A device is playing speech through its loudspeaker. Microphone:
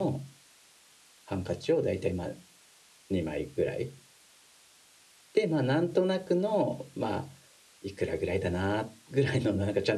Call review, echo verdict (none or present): none